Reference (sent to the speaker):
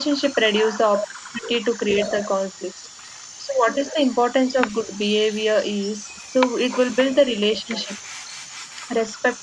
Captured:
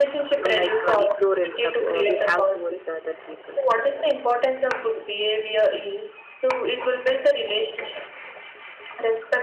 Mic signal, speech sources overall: both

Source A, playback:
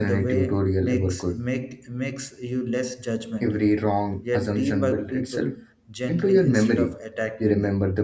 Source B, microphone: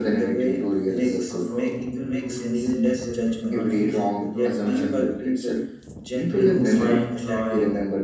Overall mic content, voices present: both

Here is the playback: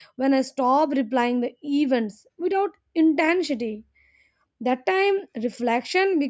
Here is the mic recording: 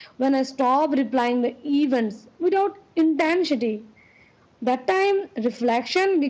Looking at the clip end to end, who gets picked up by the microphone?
echo only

